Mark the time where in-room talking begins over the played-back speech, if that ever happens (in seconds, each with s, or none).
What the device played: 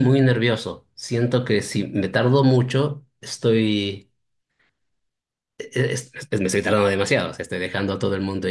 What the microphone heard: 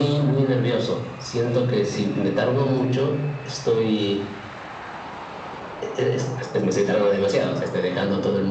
none